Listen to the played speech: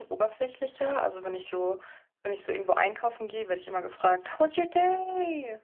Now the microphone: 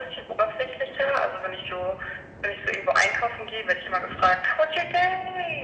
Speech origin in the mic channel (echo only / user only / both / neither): echo only